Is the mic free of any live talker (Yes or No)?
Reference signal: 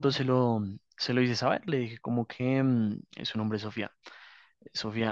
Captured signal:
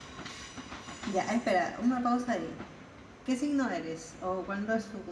No